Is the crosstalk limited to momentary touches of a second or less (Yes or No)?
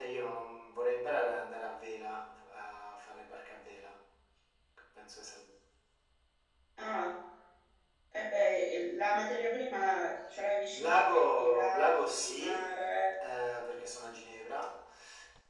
No